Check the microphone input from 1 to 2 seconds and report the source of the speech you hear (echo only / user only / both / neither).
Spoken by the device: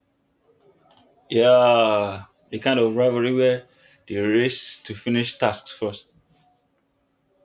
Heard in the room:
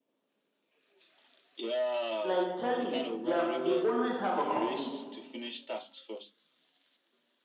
echo only